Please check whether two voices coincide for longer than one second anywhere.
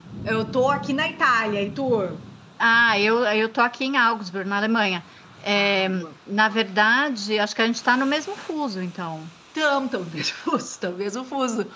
No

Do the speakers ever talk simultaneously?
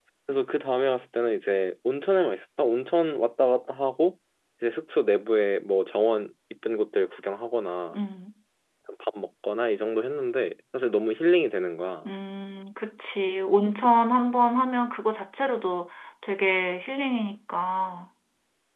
No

